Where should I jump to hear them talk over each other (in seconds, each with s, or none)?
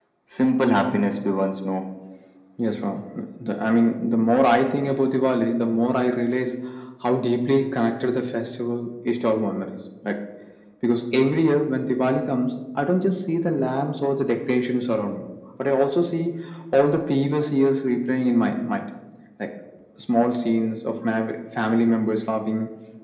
none